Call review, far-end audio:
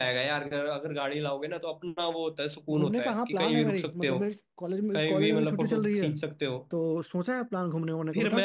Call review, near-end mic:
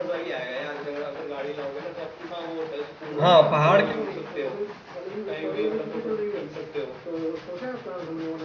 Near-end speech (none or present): present